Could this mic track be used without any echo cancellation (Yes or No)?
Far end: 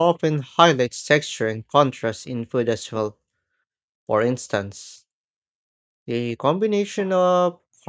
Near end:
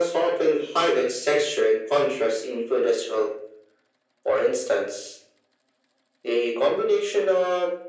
No